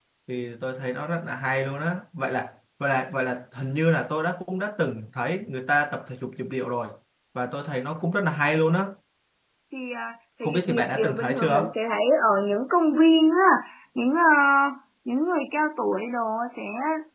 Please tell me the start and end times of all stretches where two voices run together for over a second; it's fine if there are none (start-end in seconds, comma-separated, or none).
10.4-11.7